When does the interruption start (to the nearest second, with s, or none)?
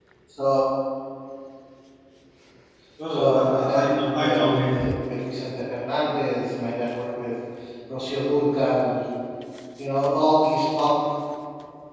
3 s